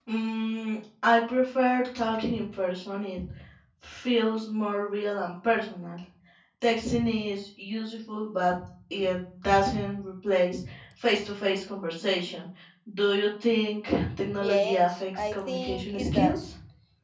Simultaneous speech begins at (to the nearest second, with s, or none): 14 s